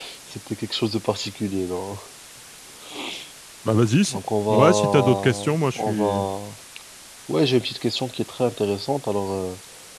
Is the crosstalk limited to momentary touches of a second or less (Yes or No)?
No